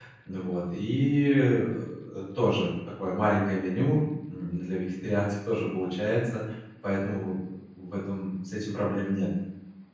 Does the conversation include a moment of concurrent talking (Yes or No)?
No